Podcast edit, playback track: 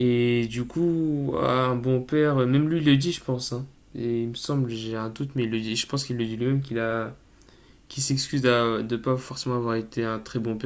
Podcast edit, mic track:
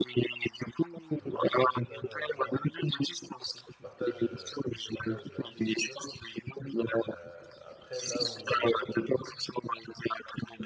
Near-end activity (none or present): present